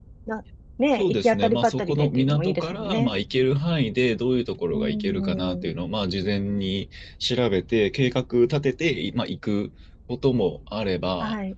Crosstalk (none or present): present